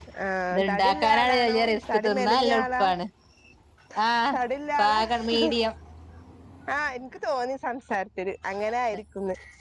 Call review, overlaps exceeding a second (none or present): present